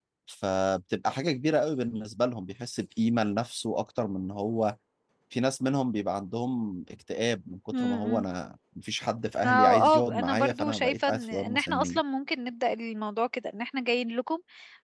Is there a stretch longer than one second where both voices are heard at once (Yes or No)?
Yes